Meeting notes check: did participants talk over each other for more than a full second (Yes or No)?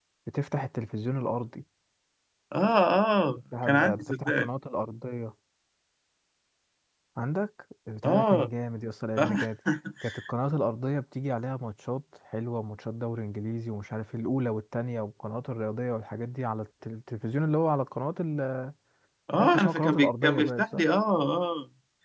Yes